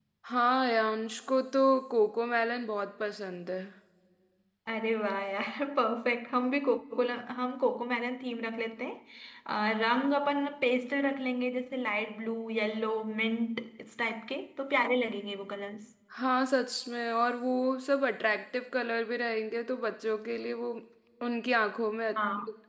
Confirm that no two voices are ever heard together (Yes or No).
Yes